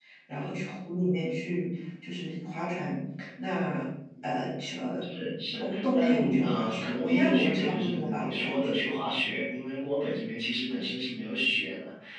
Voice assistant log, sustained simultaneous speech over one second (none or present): present